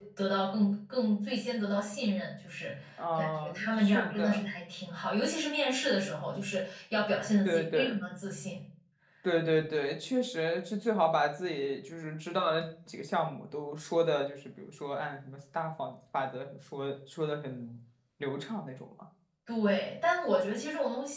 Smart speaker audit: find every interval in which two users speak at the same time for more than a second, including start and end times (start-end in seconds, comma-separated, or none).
3.2-4.4